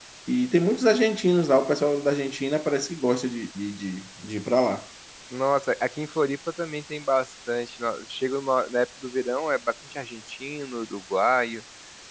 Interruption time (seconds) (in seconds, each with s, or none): none